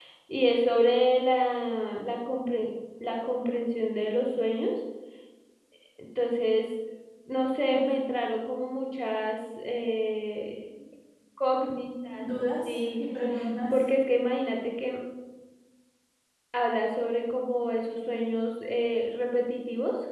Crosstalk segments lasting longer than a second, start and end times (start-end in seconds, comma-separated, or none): none